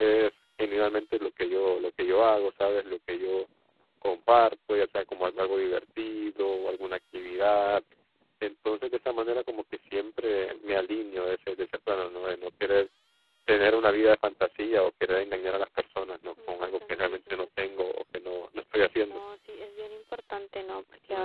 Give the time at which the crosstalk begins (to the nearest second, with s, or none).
16 s